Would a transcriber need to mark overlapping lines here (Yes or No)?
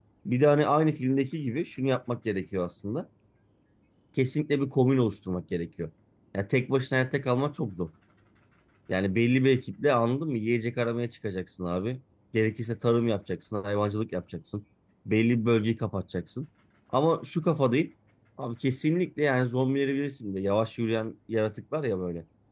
No